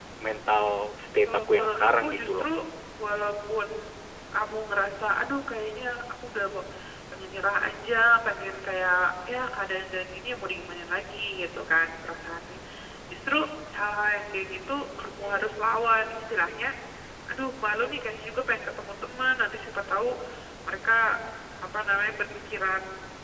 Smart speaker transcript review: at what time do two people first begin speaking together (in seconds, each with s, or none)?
1.3 s